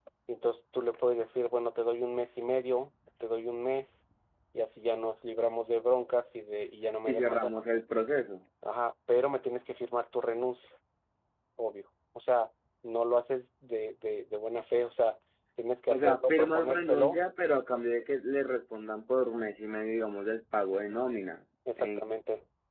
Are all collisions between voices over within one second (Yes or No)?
No